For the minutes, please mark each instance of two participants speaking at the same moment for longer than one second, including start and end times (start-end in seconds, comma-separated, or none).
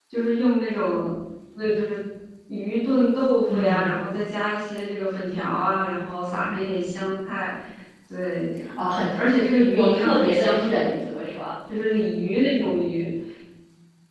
9.7-11.0